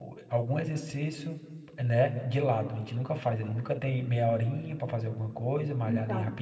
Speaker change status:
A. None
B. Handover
A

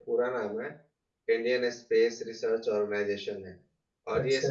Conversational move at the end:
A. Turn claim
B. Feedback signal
B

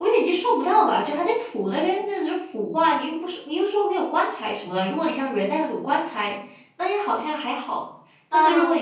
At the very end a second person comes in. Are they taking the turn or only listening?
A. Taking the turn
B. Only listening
B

